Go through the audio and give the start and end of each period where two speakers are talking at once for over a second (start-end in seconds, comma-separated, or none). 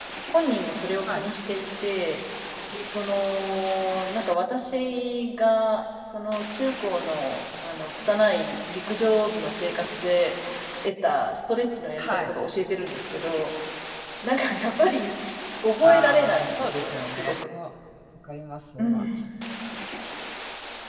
15.8-17.3